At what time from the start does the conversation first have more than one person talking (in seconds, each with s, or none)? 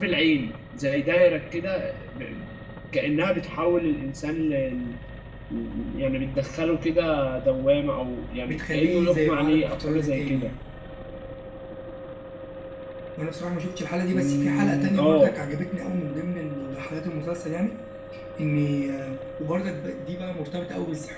8.5 s